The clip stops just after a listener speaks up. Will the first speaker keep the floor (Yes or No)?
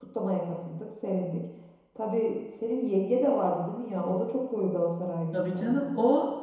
No